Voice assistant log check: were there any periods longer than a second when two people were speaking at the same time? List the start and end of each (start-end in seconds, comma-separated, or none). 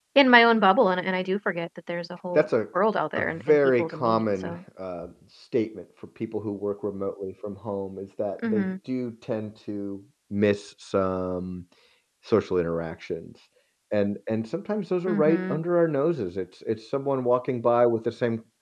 3.2-4.6